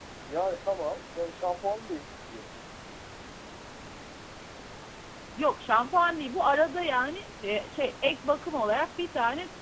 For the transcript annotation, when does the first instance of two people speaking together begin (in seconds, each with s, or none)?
none